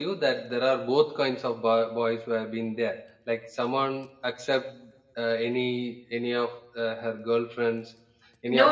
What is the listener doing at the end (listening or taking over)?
taking over